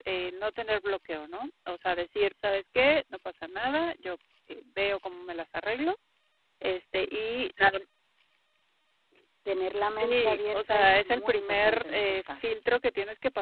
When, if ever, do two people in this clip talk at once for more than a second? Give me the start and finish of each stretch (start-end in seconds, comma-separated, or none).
10.0-12.6